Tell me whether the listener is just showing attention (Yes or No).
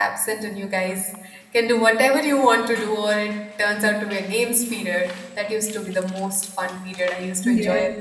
No